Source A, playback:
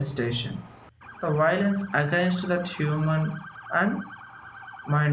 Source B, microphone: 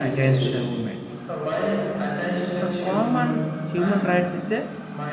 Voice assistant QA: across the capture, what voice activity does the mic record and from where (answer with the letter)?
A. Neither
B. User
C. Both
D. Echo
C